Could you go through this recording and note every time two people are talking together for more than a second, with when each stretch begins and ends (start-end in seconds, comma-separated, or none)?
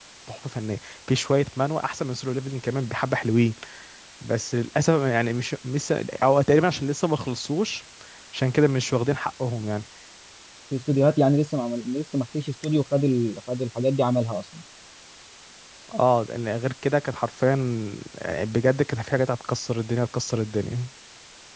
none